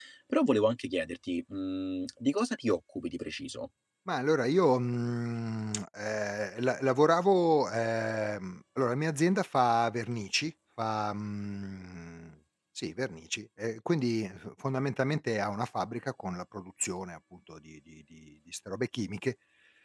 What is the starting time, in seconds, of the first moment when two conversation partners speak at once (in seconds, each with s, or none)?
none